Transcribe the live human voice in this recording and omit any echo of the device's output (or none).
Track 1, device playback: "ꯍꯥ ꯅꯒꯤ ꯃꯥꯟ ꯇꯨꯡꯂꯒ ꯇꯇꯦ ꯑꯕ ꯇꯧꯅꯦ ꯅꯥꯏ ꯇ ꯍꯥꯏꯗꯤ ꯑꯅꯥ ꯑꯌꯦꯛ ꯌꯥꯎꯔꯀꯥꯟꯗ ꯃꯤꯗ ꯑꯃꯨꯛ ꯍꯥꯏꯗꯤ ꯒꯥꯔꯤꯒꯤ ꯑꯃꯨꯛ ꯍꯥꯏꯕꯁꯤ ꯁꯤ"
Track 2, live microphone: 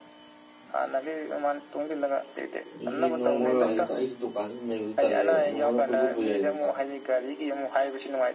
ꯑꯩꯁ ꯅꯪ ꯑꯣꯏꯔꯣ ꯑꯩ ꯑꯩꯁꯨ ꯗꯨꯀꯥꯟ ꯑꯗꯨ ꯂꯩꯕꯗꯨ ꯇꯜꯂꯦꯕ ꯅꯣꯡꯀꯥꯟꯗ ꯀꯣꯏꯊꯣꯛꯄ ꯌꯥꯏ ꯅꯗ